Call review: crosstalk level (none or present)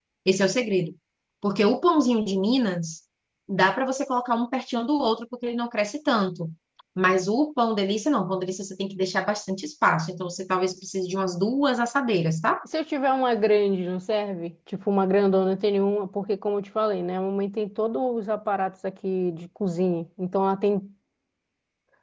none